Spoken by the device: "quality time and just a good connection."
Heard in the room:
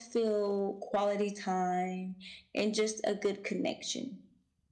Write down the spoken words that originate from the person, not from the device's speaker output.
none

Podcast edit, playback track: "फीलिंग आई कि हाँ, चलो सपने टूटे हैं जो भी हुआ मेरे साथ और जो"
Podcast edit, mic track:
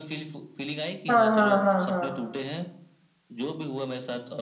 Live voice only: हाँ, हाँ, हाँ, हाँ।

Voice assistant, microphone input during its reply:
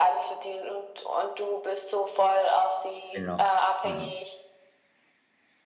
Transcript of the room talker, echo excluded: genau. Mhm.

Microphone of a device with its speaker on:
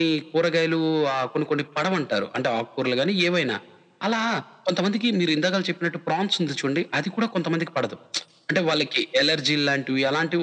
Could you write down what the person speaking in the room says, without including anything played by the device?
none

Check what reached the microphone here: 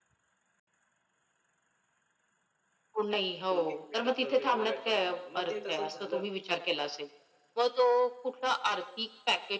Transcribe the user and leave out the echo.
कोण किती मेहनत करतो ह्याला काही फरक नाही. मग ते तसंच झालं

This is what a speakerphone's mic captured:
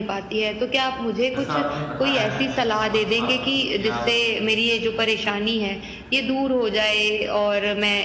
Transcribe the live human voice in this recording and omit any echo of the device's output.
जैसा आपने बताया है मैं समझ पा रहा हूँ क्योंकि आप कहीं न कहीं

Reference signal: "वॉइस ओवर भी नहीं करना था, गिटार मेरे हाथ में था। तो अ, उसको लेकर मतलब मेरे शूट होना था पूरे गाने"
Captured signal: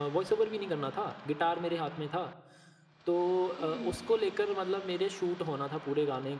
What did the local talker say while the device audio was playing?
हुँ, हुँ।

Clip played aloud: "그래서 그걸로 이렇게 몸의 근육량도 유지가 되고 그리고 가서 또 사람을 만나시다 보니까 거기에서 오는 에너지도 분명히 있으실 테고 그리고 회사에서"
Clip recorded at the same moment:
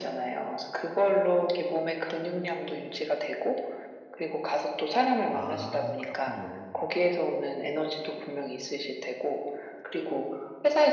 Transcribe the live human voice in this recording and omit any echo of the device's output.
아 그렇군요.

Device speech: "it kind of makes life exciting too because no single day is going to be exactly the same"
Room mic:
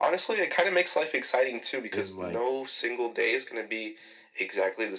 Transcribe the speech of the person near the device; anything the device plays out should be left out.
in like,

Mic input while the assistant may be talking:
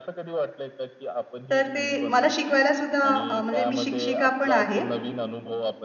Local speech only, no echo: तर ते मला शिकवायला सुद्धा अ, म्हणजे मी शिक्षिका पण आहे.

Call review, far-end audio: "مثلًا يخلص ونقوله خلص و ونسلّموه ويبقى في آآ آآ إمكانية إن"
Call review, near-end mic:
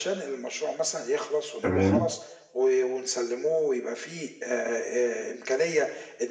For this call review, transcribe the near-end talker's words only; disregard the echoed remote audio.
تمام،

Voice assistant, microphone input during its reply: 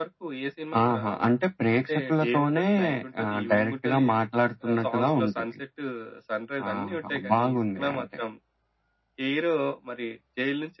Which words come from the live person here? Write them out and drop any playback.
none

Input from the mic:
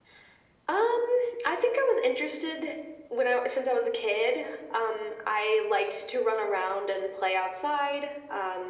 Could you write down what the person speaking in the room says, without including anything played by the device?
none

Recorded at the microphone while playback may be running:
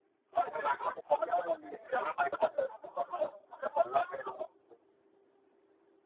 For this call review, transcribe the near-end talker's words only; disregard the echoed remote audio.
none

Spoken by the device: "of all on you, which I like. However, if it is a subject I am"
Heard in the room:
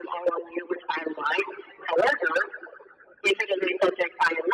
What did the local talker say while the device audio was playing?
none

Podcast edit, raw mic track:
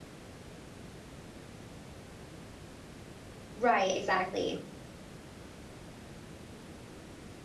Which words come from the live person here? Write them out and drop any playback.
right, exactly.

